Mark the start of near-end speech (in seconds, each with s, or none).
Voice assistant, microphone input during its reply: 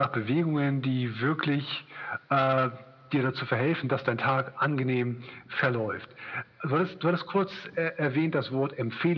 none